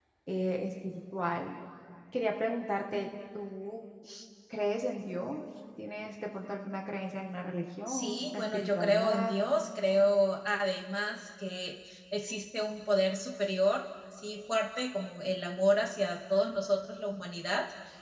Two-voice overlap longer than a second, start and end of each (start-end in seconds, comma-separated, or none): 7.9-9.4